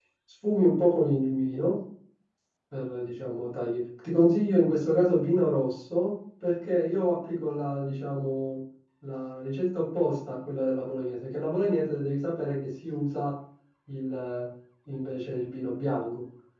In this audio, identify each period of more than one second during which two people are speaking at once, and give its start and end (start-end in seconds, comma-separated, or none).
none